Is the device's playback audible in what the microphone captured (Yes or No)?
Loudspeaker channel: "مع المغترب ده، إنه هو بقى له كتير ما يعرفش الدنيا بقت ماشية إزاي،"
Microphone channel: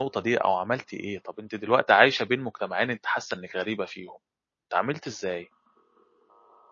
No